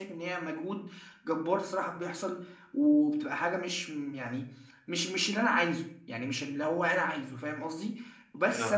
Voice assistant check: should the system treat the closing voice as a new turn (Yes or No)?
No